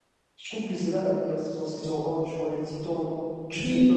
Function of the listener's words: listening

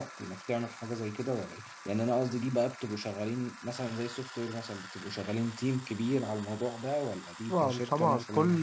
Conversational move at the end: taking over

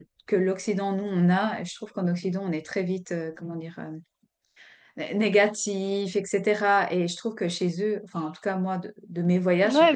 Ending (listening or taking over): taking over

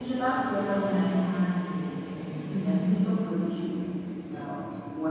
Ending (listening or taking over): listening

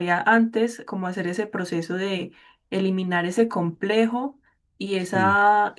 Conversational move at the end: listening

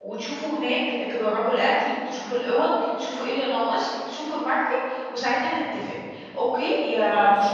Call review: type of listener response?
listening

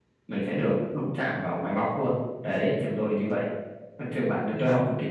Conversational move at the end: listening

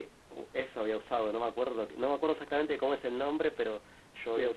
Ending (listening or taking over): listening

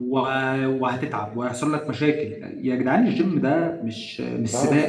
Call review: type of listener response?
taking over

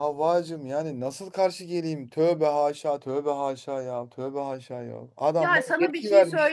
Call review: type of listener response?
taking over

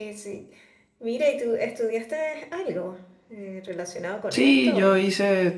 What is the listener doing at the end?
taking over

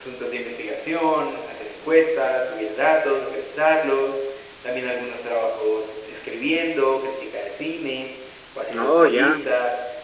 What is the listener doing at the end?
listening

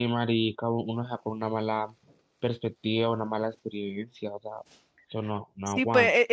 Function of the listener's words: taking over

